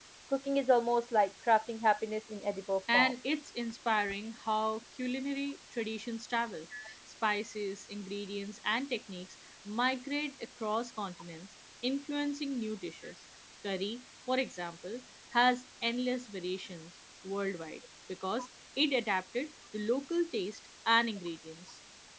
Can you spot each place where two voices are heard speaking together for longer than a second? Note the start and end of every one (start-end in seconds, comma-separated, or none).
none